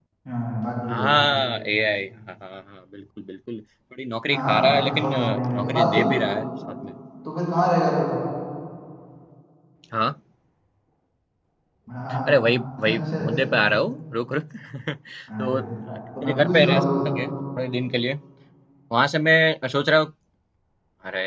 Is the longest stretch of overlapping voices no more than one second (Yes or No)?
No